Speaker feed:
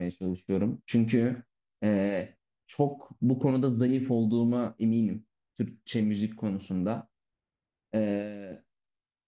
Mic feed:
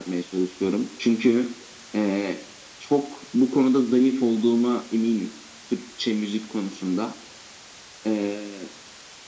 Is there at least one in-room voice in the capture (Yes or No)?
No